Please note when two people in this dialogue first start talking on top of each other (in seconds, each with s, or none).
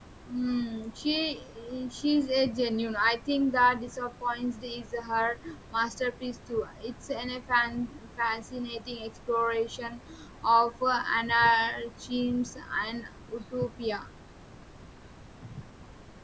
none